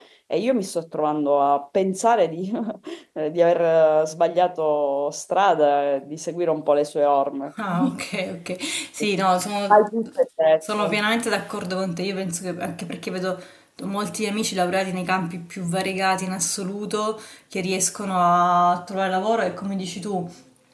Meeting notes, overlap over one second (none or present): none